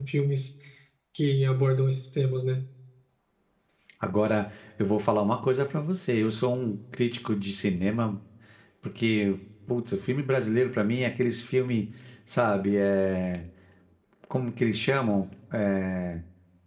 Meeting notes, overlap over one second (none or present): none